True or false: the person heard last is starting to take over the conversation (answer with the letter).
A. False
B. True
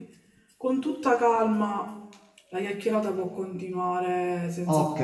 B